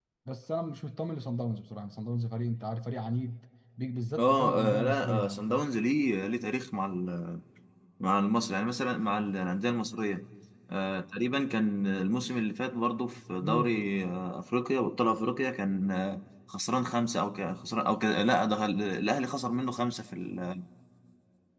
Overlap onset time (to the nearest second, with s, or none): 4 s